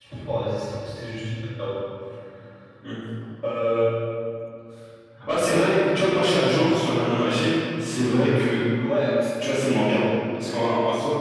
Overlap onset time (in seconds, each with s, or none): none